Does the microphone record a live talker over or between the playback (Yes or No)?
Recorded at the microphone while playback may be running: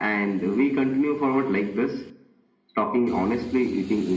No